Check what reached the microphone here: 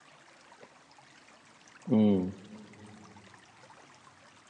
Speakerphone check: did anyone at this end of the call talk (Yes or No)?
Yes